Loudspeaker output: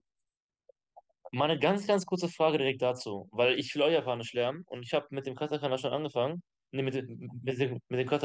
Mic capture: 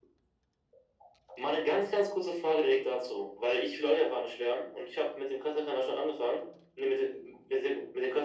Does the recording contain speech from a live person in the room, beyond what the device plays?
No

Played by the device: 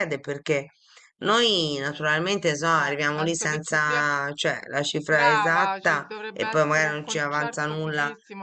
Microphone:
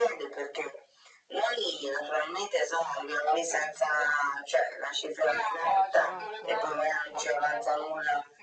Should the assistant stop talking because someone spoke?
Yes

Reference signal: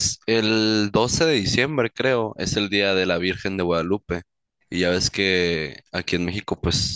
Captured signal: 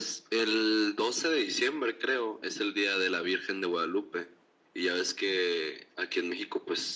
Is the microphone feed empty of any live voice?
Yes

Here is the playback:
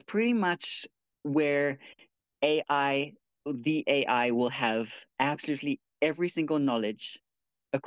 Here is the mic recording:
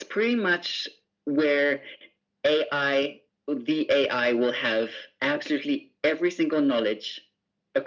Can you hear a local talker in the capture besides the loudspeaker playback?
No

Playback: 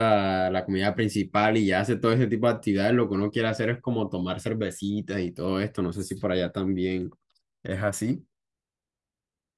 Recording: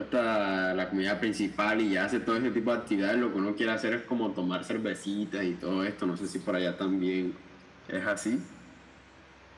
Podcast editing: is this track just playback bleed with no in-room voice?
Yes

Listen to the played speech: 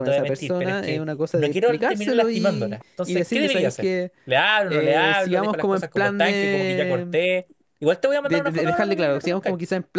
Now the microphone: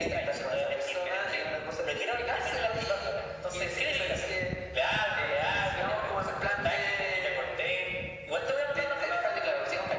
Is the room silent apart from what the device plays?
Yes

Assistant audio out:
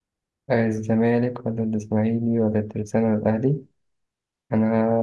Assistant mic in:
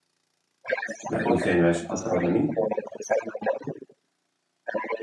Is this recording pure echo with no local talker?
No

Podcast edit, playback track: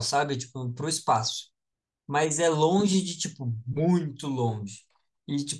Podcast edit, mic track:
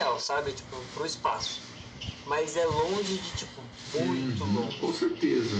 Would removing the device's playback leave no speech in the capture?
No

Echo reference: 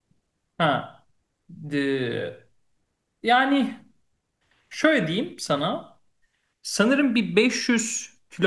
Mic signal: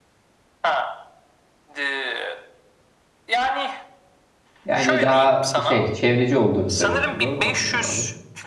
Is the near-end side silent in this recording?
No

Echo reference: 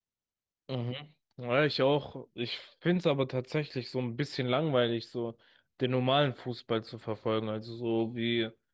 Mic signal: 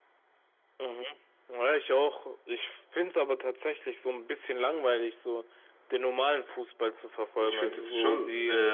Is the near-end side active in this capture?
Yes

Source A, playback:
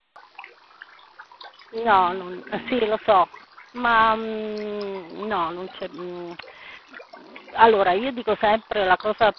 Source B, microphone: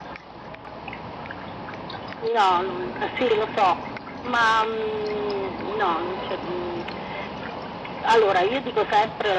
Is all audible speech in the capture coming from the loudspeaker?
Yes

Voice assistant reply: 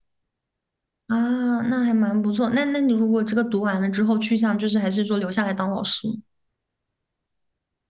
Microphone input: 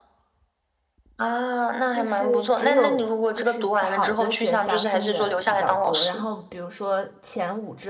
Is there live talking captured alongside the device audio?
Yes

